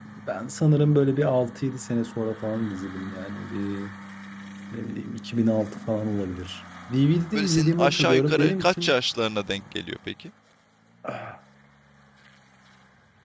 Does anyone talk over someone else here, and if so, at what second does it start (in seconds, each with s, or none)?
7.3 s